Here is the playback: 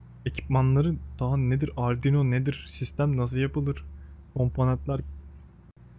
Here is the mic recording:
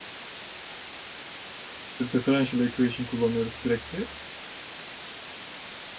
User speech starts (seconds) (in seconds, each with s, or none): 1.8 s